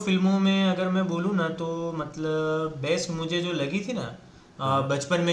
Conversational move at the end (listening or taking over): listening